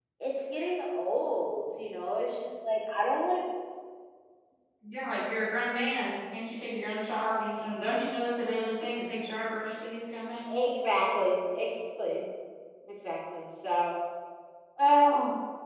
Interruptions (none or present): none